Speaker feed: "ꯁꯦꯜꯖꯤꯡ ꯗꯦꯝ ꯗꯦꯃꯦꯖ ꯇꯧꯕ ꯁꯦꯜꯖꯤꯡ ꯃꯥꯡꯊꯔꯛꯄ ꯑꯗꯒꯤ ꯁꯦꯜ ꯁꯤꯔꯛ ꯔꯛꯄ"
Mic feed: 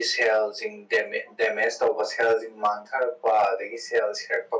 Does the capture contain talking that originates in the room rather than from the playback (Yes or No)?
No